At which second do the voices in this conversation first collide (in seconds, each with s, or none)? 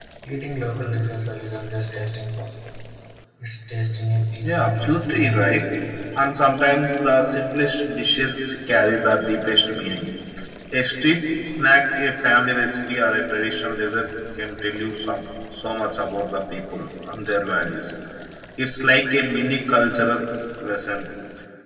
4.4 s